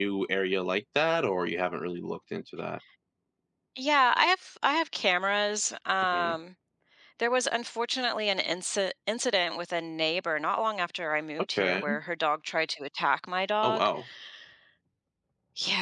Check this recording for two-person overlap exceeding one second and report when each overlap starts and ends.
none

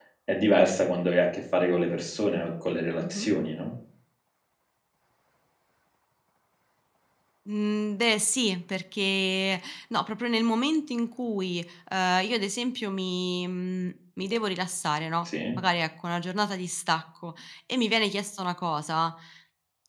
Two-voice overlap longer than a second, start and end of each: none

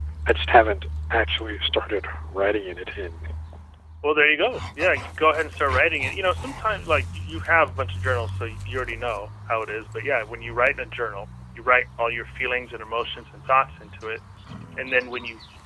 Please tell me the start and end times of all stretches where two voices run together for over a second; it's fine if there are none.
none

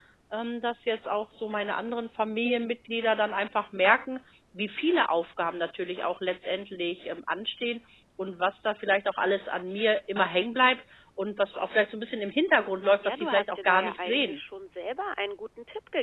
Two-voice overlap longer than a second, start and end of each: 13.1-14.4

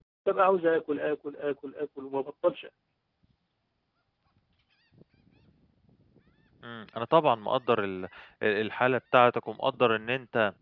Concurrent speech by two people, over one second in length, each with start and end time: none

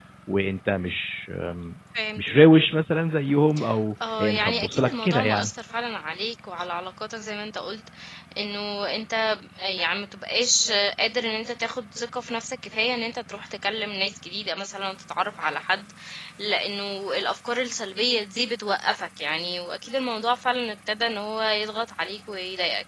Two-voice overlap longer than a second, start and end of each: 4.2-5.5

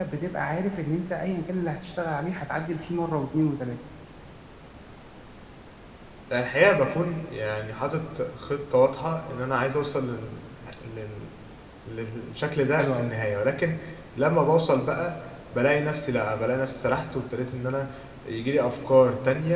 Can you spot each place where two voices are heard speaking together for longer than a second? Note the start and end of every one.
none

